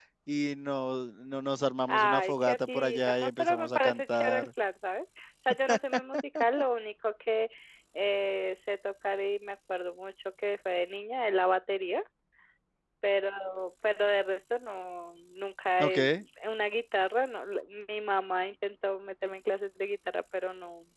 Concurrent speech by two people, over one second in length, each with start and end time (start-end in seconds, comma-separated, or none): 1.9-4.5